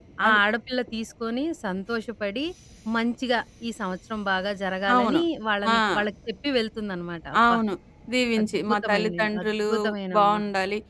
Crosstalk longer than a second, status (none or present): present